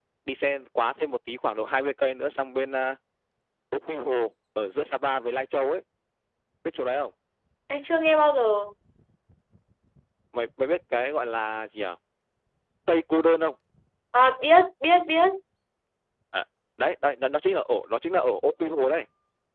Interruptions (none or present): none